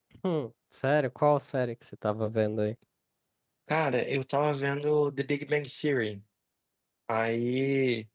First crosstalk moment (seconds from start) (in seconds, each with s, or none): none